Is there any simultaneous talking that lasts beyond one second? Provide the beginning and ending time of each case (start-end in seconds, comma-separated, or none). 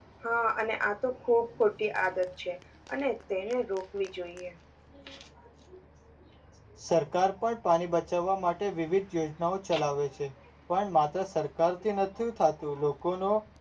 none